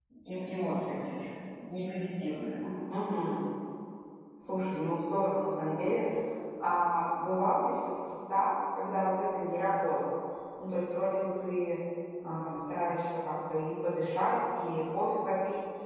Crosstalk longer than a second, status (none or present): none